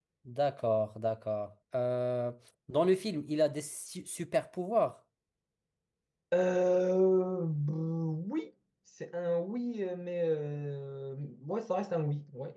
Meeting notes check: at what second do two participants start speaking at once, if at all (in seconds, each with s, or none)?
none